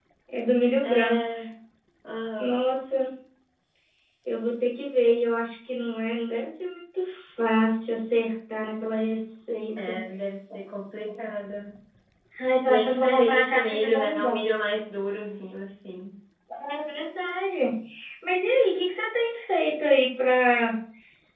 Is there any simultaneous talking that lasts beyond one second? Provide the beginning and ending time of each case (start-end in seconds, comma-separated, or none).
12.7-14.4